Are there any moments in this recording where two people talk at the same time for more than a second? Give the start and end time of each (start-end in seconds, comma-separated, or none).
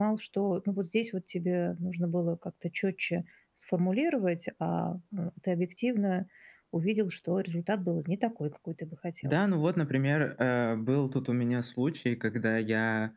none